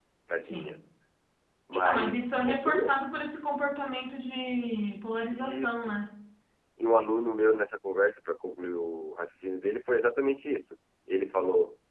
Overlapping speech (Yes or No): Yes